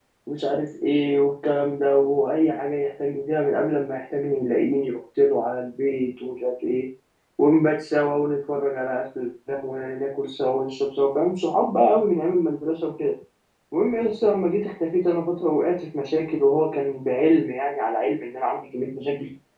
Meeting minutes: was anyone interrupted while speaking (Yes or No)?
No